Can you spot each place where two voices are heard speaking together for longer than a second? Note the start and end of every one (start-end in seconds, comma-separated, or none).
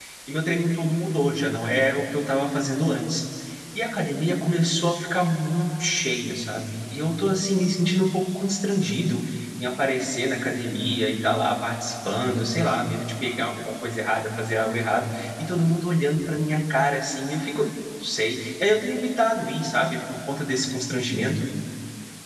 none